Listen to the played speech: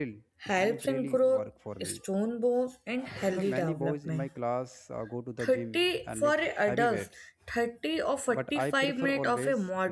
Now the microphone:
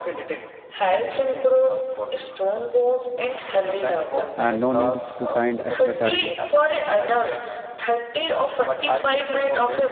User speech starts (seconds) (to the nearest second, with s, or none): 4 s